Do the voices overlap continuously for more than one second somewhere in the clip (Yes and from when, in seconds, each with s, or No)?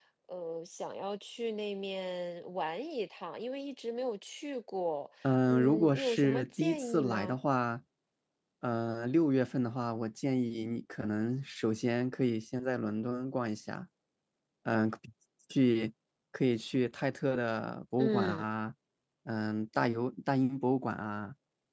Yes, from 5.5 s